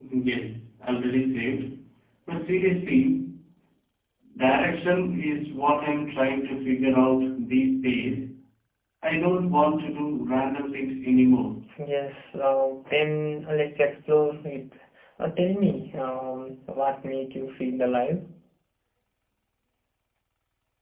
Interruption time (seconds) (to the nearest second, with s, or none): none